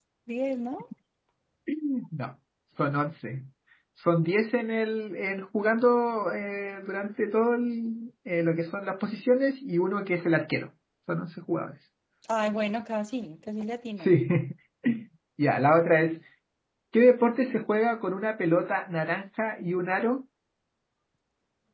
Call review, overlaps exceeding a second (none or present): none